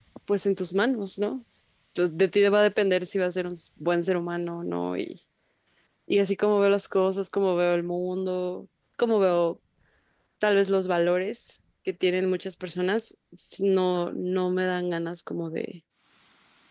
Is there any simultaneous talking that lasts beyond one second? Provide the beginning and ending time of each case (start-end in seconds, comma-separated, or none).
none